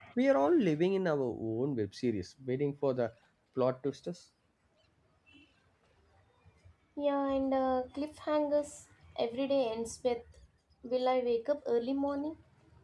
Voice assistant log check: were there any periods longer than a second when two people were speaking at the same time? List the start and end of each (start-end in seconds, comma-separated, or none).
none